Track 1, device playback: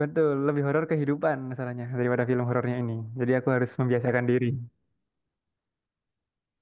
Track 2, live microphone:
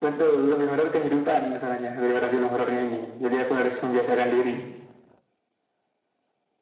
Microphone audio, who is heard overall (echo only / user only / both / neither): echo only